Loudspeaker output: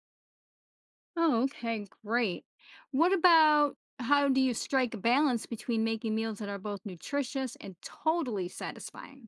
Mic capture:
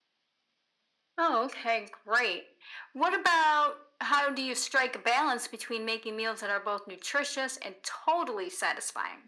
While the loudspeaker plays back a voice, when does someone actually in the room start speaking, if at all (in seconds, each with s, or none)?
none